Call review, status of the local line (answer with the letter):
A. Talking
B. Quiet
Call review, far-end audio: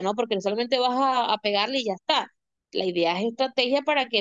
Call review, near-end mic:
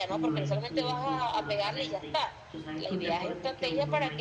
A